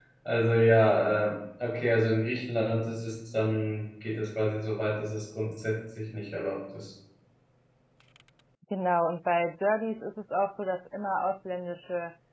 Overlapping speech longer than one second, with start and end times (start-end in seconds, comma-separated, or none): none